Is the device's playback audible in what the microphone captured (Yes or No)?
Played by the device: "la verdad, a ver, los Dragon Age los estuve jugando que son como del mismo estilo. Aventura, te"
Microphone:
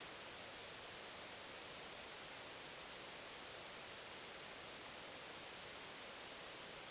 No